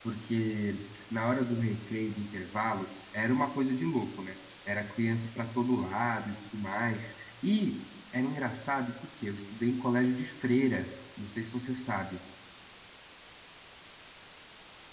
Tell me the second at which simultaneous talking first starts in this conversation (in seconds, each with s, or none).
none